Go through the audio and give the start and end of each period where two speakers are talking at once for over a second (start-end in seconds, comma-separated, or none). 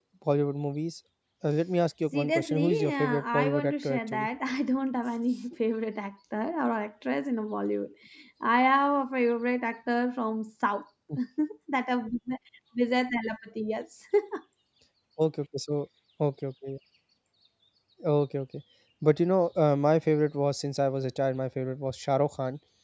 2.1-4.3